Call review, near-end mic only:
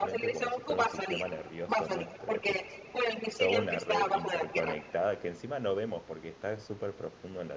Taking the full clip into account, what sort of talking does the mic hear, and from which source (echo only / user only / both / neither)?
both